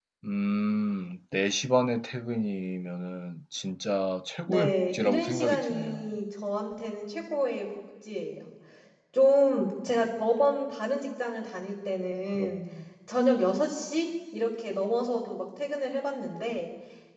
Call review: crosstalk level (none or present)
present